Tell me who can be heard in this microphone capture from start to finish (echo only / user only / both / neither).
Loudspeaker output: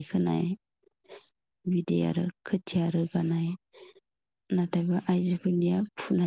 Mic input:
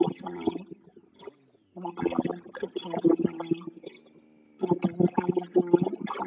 echo only